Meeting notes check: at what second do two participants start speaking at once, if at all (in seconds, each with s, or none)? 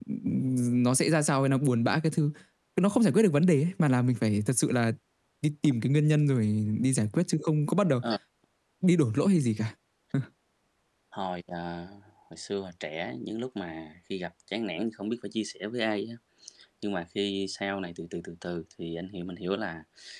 none